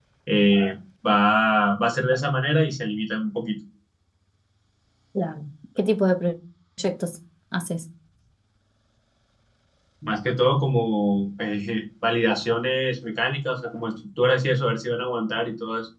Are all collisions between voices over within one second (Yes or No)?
Yes